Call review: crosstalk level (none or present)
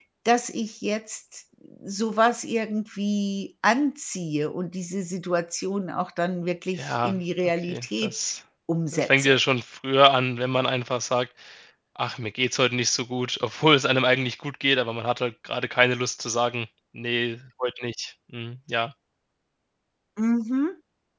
present